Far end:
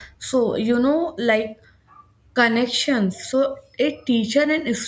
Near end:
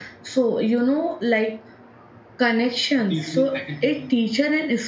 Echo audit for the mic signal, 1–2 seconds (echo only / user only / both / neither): echo only